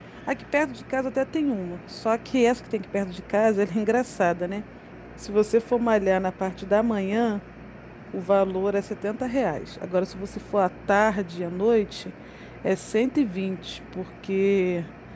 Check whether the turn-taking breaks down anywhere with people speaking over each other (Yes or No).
No